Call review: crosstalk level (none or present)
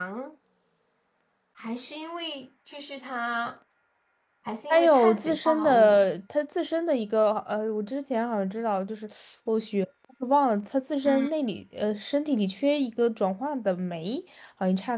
present